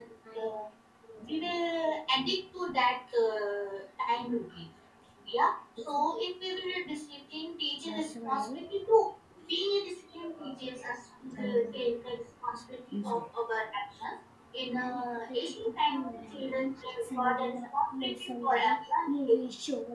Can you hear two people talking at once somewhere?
Yes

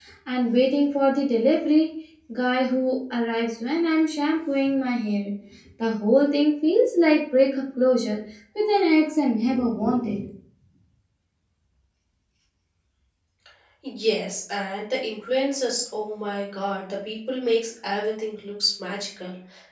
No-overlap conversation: Yes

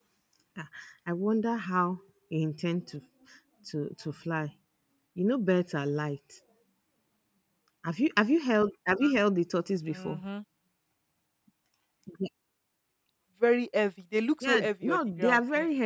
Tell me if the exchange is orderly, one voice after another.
No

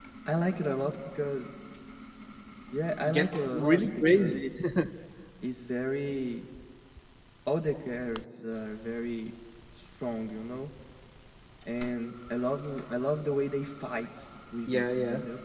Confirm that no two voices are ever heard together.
No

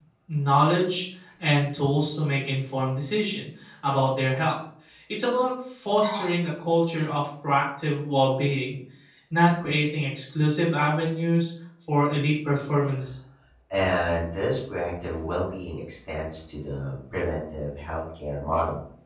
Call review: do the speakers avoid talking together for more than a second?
Yes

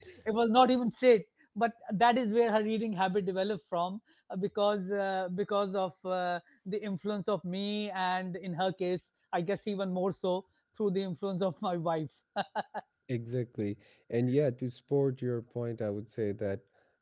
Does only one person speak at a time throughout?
Yes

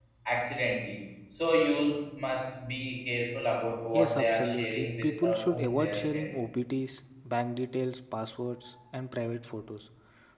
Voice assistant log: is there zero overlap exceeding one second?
No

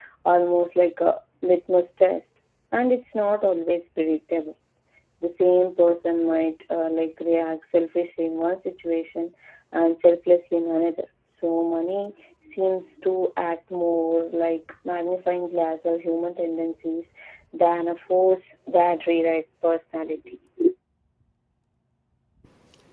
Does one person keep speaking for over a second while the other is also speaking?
No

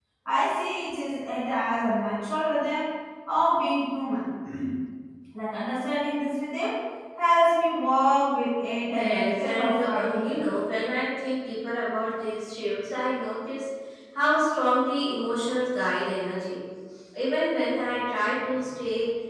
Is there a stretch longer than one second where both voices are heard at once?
Yes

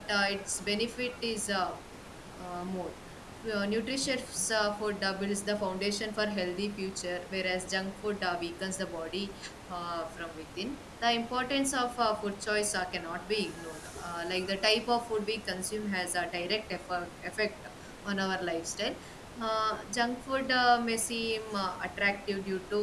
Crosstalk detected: No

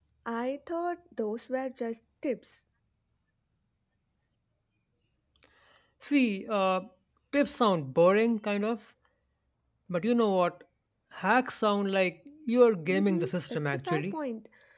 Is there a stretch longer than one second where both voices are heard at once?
Yes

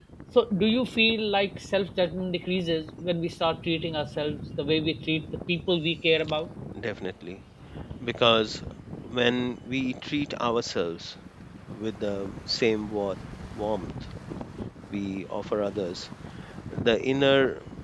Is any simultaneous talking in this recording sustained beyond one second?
No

